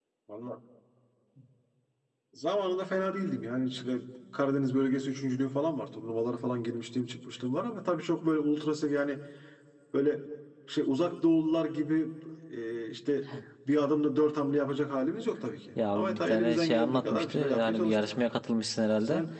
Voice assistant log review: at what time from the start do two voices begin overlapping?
15.8 s

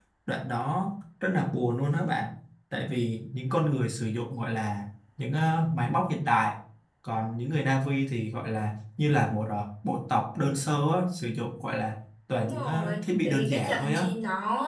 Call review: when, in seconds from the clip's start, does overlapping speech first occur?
12.3 s

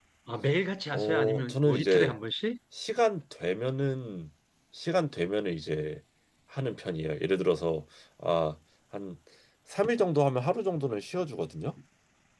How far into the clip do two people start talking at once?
0.9 s

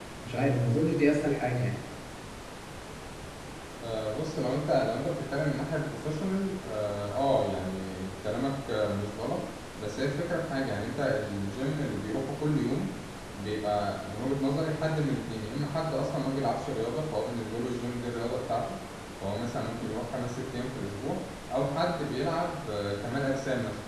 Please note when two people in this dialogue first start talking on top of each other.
none

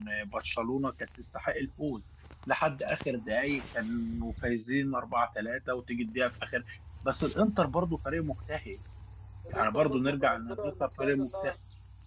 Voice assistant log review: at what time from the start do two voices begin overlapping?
9.5 s

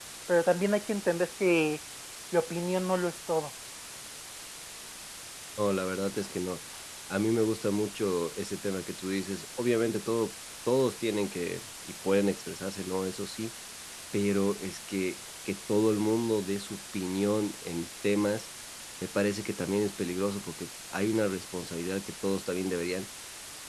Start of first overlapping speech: none

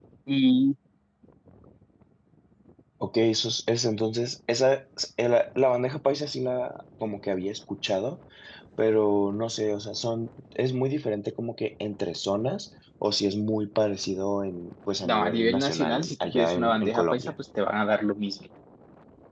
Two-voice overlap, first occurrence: 15.0 s

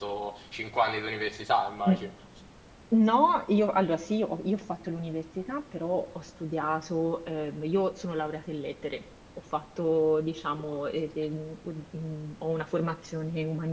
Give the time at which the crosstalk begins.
none

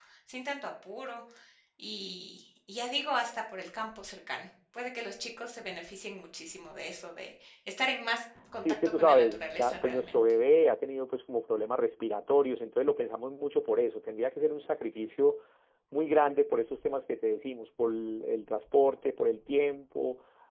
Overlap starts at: 8.6 s

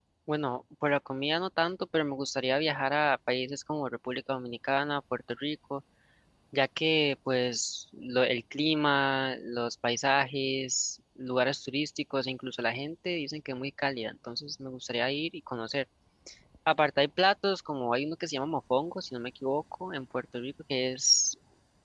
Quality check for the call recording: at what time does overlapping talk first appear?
none

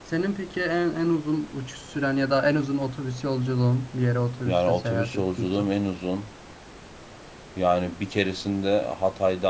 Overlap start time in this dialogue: 4.5 s

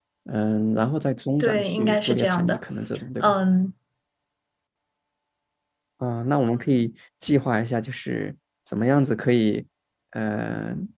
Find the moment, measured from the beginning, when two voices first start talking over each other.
1.4 s

